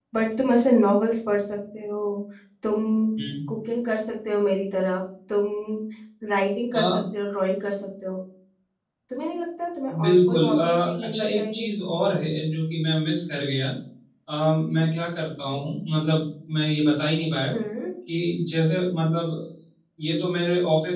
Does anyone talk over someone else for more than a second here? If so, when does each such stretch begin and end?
10.0-11.7

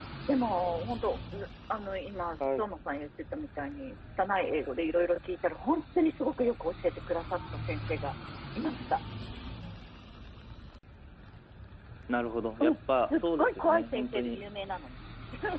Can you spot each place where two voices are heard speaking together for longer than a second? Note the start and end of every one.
12.6-14.4

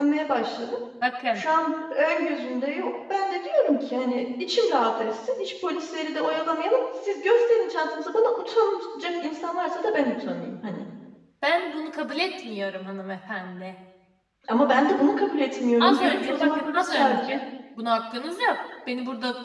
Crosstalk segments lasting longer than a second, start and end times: 15.8-17.4

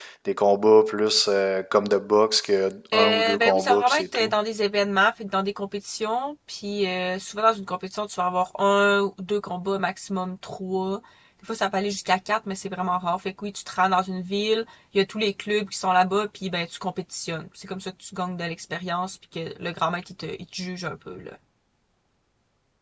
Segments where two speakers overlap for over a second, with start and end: 2.9-4.3

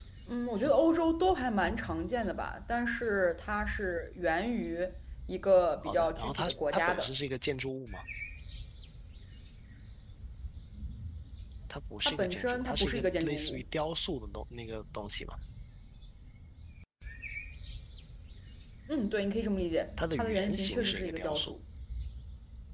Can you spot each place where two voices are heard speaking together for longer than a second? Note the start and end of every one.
5.8-7.1, 12.1-13.6, 20.1-21.5

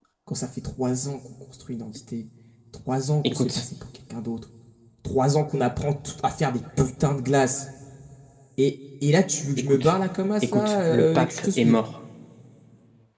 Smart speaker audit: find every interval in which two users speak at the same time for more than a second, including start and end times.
10.4-11.8

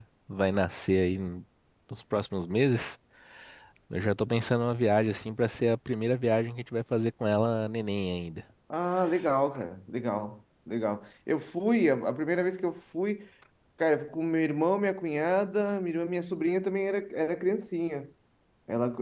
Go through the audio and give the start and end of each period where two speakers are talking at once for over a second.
none

